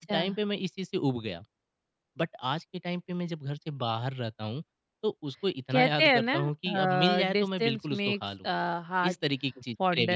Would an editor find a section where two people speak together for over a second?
Yes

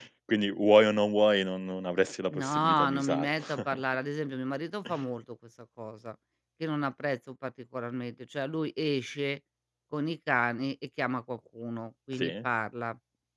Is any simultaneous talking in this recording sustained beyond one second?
Yes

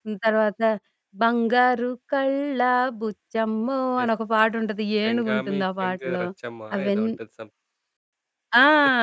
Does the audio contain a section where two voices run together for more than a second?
Yes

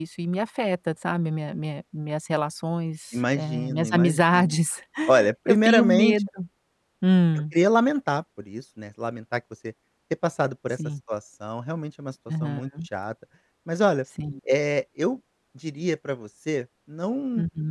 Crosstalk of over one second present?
Yes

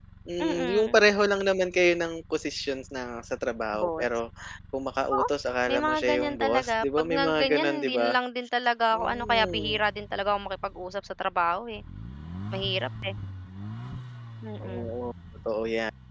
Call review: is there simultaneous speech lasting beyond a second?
Yes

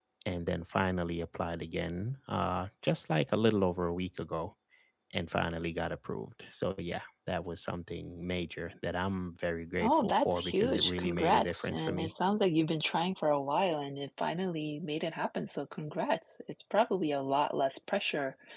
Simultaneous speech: Yes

